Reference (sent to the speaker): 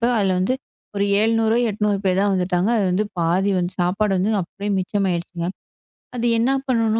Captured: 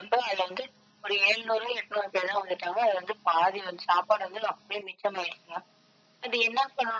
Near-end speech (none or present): none